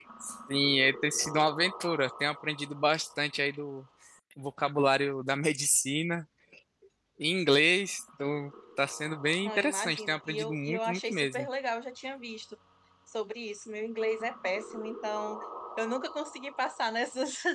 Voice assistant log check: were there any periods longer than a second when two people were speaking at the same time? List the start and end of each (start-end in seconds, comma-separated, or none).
9.4-11.5